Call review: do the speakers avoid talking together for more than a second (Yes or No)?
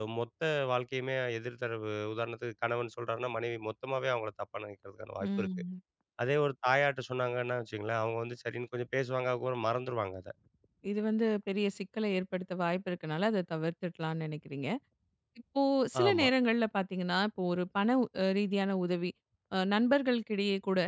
Yes